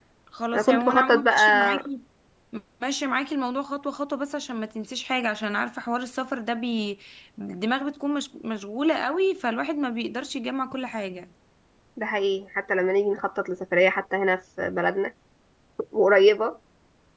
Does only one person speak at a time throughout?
No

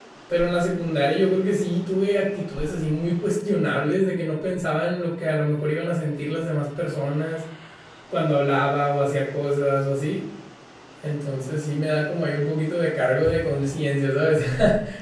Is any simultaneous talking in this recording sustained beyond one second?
No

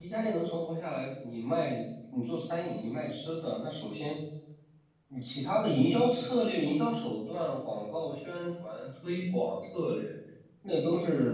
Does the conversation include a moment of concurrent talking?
No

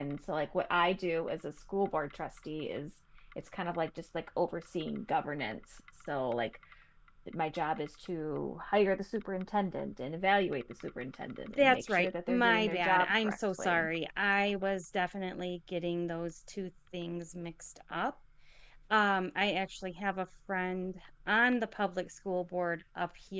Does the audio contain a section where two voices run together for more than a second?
Yes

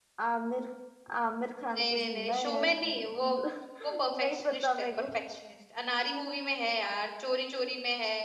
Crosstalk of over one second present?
Yes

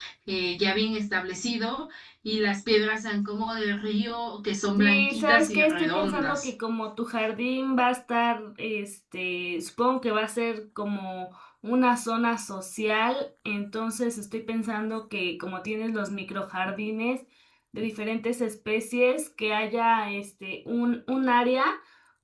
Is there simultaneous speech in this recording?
Yes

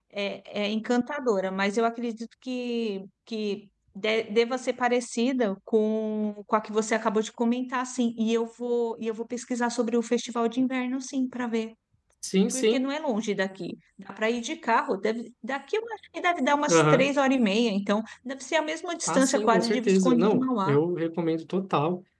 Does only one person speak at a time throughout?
No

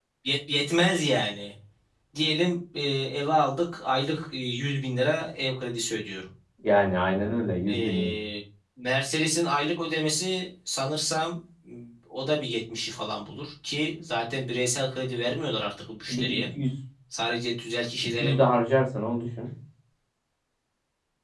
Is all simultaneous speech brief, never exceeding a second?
Yes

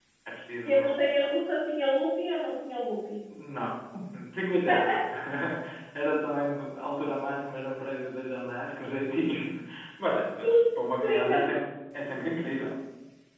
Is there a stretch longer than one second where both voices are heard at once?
No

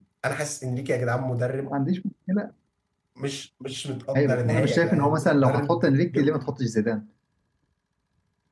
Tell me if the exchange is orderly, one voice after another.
No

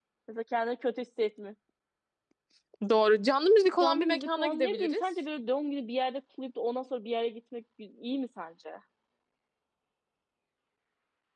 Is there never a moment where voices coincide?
No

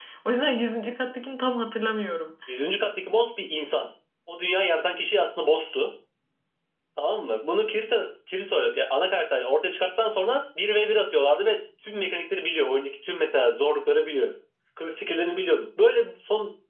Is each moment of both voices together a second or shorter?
Yes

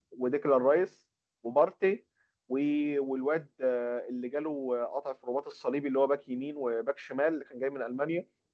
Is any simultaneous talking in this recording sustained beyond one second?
No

